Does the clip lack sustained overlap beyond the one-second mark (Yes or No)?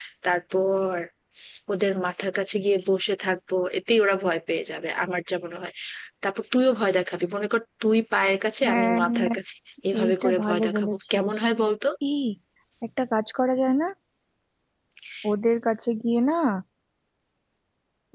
No